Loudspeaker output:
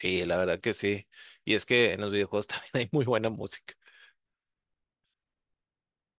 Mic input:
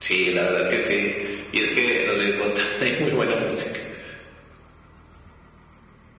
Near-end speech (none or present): none